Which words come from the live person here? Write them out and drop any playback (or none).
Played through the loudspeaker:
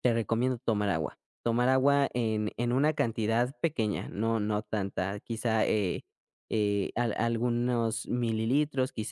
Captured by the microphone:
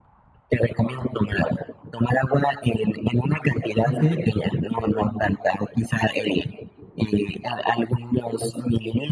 ¿okey?